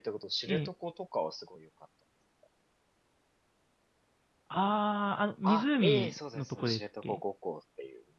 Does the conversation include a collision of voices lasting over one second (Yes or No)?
Yes